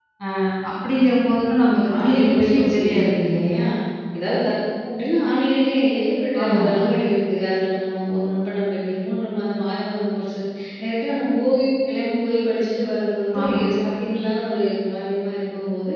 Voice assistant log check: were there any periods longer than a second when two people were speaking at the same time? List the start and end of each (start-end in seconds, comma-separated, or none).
1.7-3.4